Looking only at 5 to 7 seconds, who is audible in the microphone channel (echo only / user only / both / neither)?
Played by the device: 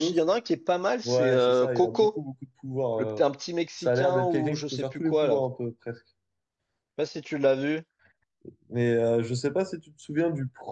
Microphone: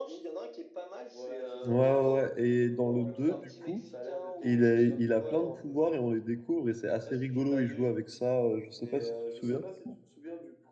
both